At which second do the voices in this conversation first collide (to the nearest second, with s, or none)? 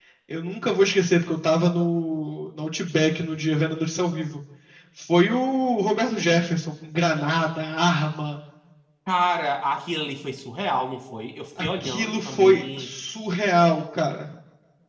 12 s